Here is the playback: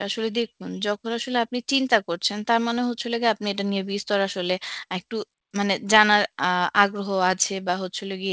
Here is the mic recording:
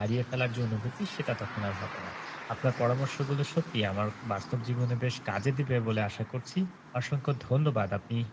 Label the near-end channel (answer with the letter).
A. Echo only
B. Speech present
B